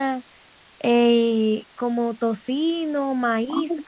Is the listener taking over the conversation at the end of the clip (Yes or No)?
Yes